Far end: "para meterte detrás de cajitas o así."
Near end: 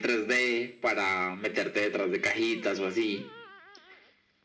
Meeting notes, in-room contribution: none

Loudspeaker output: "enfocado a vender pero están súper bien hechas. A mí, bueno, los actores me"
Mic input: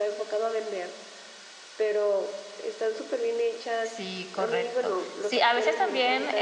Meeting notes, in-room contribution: present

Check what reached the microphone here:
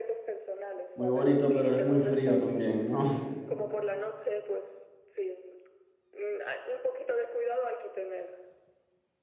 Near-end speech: present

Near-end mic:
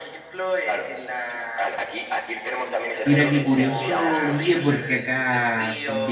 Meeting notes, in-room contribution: present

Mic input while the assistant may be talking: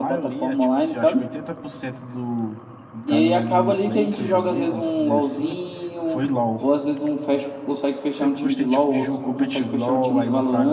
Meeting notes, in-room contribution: present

